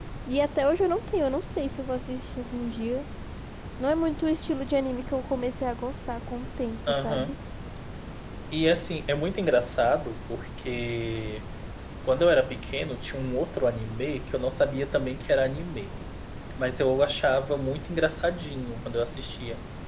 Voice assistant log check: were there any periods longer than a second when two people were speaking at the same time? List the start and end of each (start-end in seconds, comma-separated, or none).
none